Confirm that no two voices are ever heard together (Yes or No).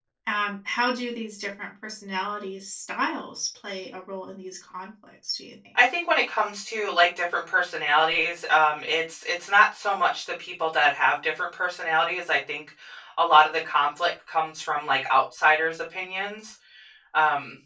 Yes